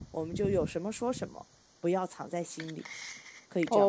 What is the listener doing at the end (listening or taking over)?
taking over